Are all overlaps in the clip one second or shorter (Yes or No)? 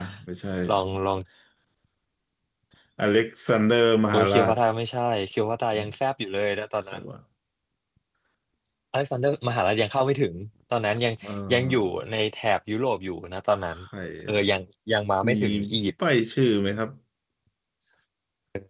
Yes